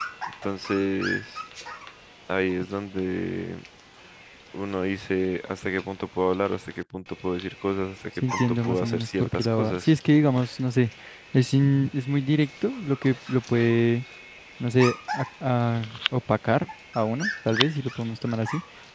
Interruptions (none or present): present